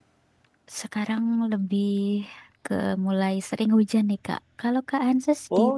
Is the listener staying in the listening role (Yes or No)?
No